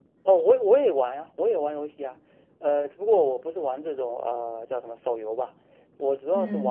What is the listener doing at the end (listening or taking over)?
listening